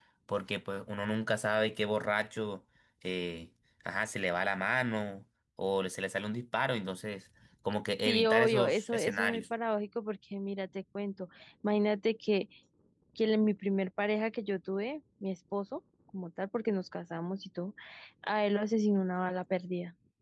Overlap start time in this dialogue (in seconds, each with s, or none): 8.1 s